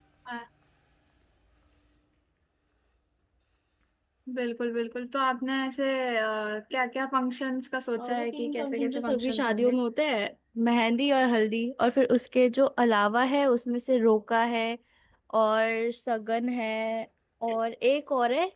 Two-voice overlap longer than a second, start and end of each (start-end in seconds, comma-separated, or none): 8.0-9.8